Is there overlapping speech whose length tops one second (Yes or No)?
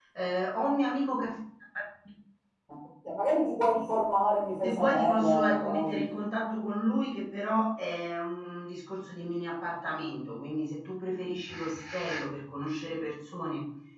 Yes